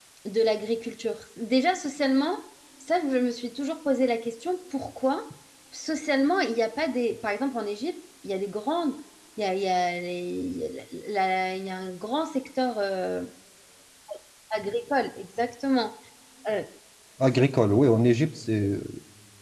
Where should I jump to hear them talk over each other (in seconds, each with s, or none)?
none